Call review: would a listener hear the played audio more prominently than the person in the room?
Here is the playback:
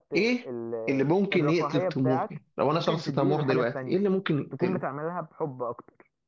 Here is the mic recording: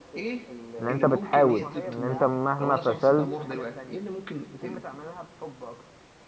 No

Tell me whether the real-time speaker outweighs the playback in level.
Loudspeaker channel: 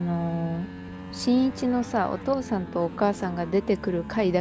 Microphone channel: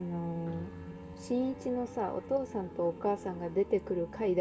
No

